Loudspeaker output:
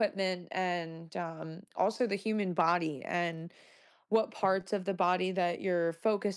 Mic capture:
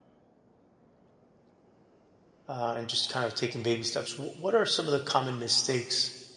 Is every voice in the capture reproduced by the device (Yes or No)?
No